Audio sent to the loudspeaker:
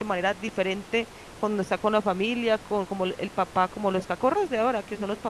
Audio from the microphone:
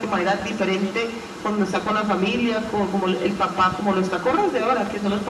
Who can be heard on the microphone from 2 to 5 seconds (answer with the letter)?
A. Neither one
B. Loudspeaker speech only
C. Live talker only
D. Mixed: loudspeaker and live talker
B